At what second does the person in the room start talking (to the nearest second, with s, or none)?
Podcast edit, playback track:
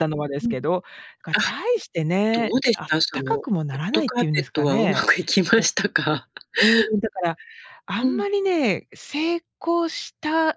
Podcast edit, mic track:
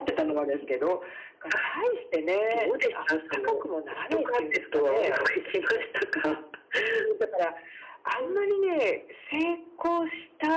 none